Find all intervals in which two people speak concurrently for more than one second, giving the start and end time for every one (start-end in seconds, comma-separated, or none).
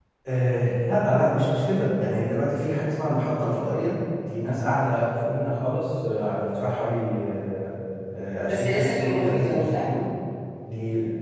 8.4-9.9